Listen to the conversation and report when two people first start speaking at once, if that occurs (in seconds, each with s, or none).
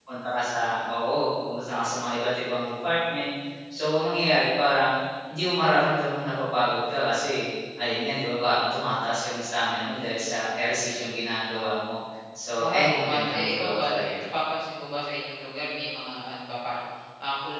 12.6 s